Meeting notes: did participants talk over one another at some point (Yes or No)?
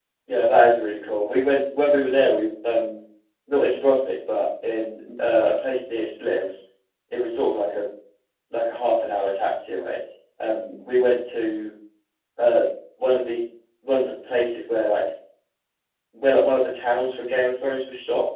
No